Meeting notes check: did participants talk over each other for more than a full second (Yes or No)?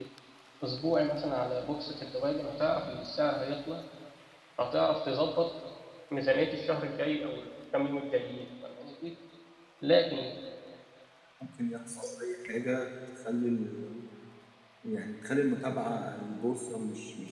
No